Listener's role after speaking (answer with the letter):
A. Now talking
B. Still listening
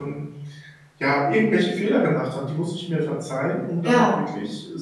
B